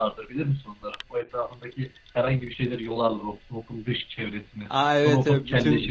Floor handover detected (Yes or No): Yes